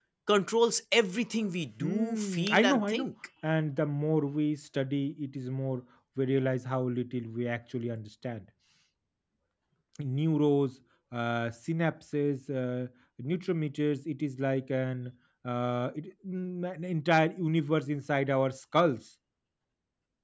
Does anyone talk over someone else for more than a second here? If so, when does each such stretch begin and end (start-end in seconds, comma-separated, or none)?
1.8-3.1